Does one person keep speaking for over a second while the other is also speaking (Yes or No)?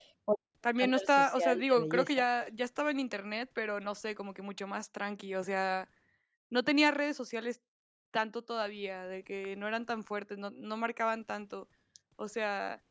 Yes